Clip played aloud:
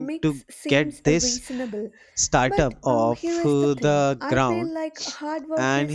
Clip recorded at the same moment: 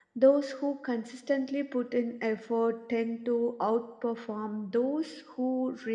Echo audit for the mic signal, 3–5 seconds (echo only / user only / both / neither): user only